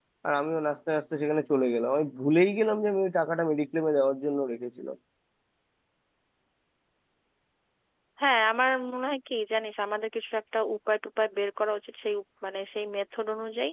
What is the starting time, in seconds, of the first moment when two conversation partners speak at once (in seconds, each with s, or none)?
none